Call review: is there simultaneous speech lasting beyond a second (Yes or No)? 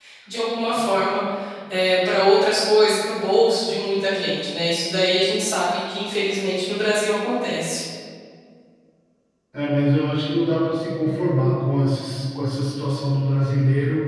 No